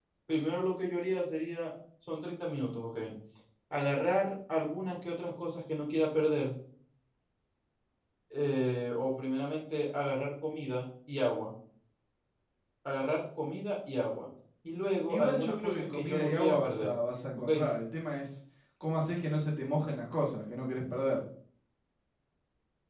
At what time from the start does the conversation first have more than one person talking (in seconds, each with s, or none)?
15.1 s